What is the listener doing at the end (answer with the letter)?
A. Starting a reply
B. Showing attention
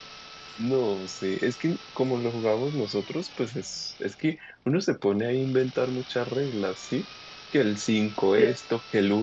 B